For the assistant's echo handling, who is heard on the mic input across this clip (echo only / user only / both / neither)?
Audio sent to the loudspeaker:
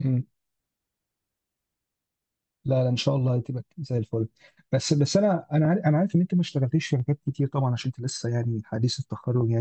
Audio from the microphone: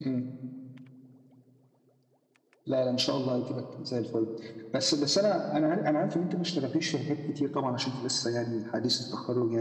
echo only